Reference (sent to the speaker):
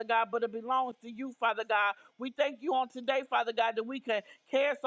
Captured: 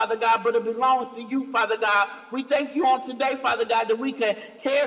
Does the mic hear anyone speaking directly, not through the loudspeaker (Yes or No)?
No